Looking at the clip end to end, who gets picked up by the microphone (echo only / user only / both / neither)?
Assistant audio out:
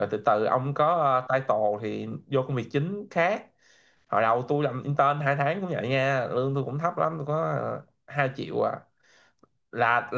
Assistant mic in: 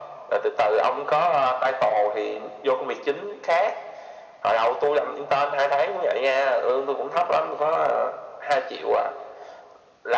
echo only